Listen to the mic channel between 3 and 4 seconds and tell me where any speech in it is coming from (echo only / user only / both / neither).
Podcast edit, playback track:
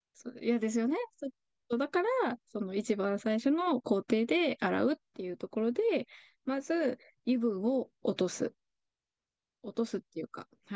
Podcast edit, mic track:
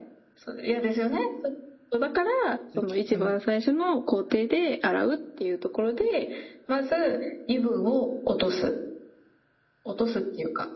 both